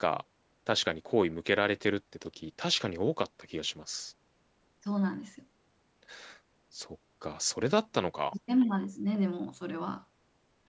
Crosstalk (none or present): none